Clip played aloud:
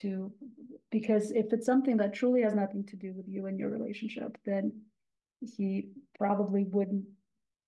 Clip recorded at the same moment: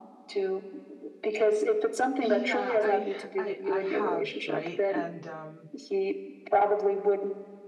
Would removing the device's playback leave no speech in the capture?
No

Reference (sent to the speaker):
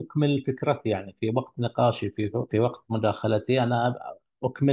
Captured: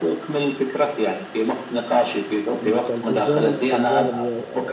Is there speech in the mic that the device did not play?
Yes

